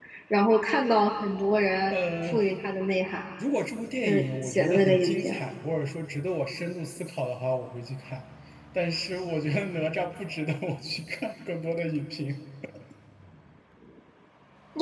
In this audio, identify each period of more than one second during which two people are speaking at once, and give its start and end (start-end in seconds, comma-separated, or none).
4.0-5.3